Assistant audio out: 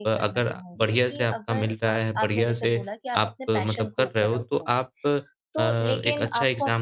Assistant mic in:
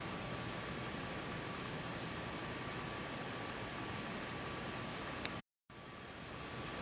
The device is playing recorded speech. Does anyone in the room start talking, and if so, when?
none

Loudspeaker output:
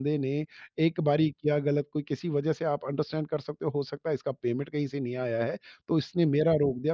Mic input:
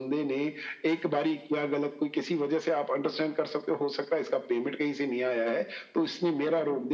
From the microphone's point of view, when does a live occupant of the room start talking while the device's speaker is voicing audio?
none

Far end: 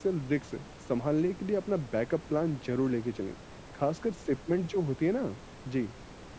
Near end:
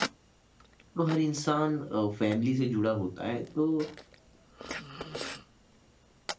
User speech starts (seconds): 1.0 s

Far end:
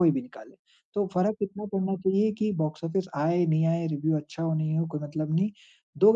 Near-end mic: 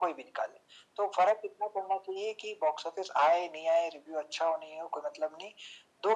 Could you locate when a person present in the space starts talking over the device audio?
none

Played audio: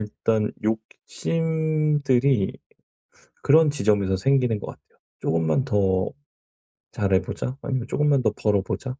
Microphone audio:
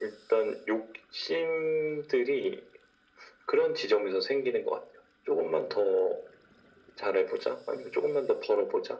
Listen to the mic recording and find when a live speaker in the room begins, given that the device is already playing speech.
none

